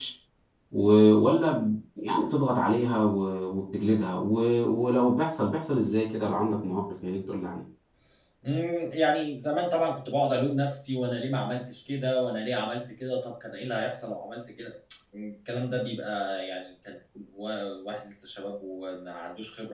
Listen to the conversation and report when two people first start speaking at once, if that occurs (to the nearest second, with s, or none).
none